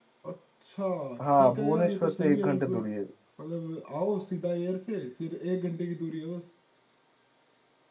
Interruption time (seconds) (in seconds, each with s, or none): 1.4 s